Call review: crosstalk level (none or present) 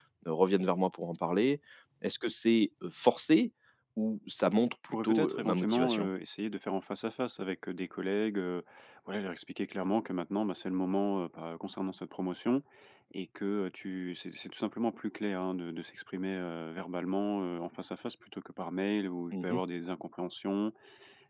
present